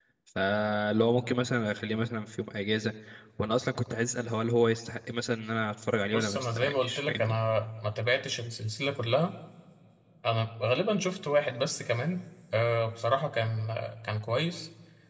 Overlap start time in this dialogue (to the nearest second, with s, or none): 6 s